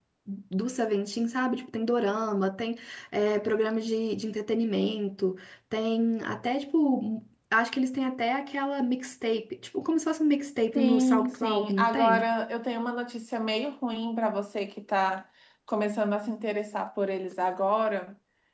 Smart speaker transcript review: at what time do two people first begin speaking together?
11 s

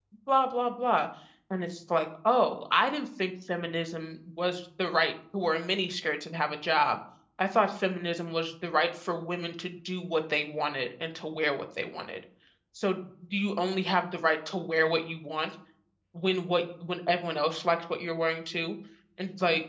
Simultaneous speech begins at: none

